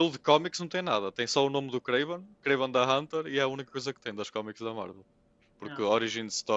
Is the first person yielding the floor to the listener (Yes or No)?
No